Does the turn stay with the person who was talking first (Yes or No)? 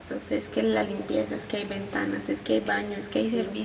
Yes